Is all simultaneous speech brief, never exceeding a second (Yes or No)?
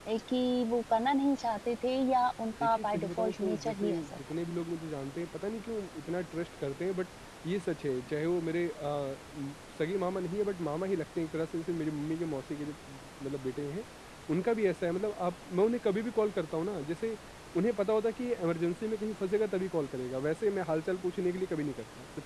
No